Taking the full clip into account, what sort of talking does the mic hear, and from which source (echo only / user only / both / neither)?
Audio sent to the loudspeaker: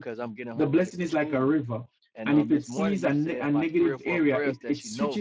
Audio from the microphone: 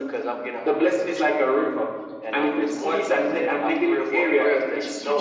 echo only